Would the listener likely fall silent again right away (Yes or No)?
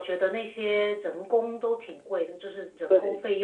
Yes